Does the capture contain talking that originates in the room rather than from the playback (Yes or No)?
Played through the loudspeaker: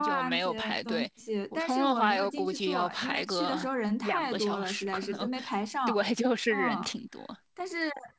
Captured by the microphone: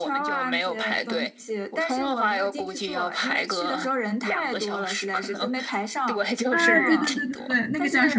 Yes